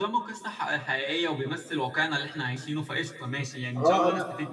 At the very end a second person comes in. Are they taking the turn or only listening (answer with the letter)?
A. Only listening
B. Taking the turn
B